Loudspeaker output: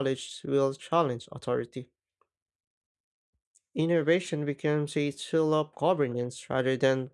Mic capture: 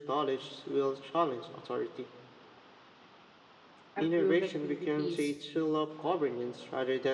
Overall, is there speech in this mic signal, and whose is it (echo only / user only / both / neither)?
both